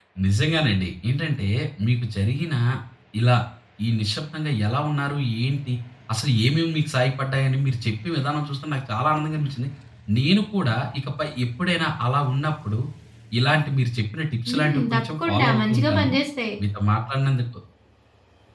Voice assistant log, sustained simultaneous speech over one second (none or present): present